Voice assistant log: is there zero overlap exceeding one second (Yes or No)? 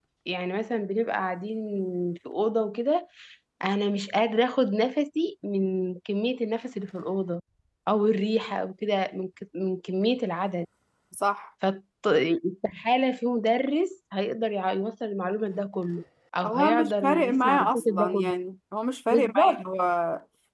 No